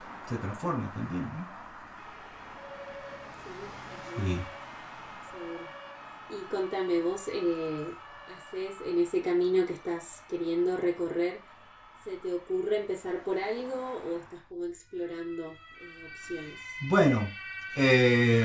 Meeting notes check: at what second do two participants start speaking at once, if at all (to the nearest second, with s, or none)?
none